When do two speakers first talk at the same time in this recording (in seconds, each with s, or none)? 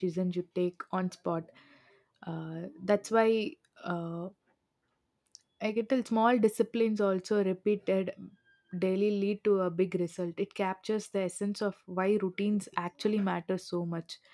none